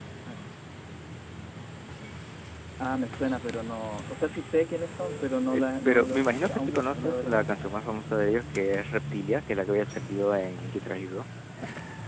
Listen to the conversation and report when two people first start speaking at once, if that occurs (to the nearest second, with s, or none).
5 s